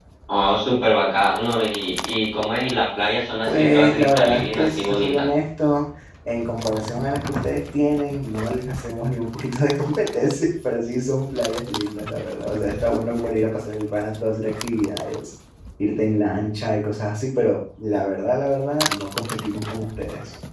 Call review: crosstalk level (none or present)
present